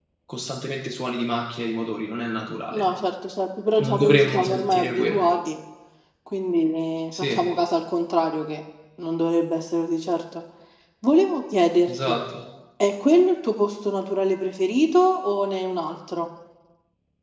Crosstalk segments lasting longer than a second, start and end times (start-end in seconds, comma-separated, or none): 3.8-5.2